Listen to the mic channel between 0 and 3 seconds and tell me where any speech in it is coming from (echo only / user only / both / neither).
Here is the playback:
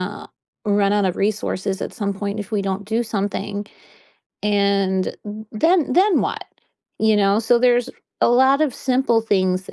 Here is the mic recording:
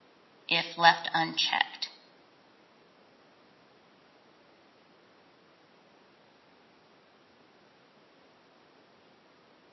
user only